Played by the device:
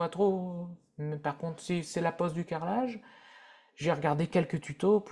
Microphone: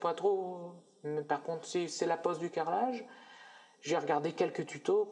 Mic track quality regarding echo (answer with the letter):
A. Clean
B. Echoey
B